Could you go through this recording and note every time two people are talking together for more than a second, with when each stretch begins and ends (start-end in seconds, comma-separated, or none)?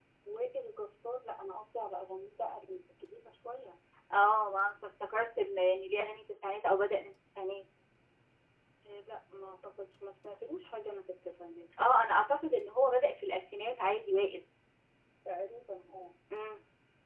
none